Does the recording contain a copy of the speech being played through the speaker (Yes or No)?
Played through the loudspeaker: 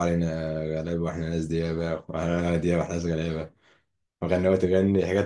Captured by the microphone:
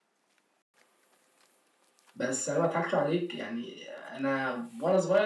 No